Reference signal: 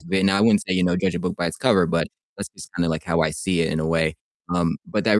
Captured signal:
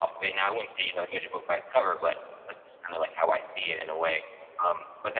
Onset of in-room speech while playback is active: none

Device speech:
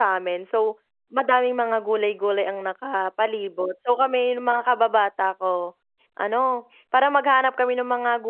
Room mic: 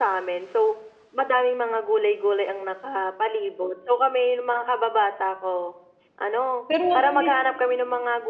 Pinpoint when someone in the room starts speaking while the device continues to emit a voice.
7 s

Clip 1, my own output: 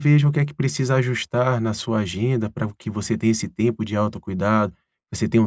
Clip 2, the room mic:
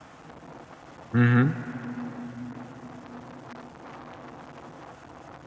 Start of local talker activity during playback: 1 s

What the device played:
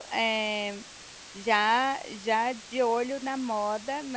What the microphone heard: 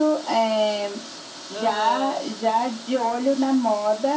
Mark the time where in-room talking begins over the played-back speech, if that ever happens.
2 s

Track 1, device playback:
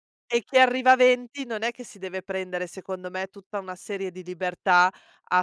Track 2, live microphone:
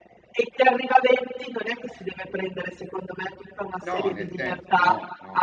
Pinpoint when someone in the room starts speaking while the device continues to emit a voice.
4 s

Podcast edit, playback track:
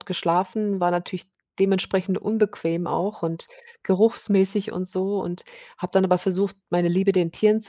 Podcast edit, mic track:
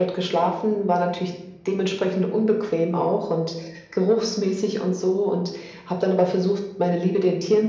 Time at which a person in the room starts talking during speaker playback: none

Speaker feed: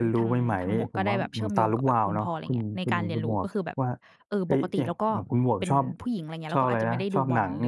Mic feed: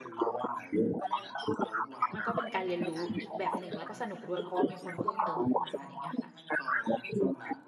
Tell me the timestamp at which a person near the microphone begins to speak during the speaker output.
2 s

